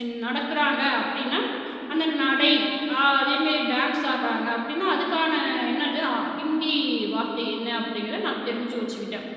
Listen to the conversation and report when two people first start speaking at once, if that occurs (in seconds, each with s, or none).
none